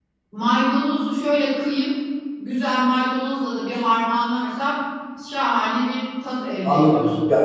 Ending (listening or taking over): taking over